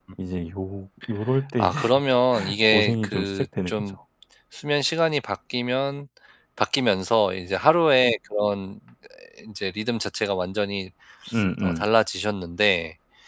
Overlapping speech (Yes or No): Yes